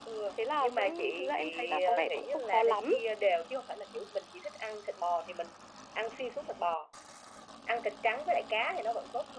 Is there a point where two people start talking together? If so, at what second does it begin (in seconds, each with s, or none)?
0.6 s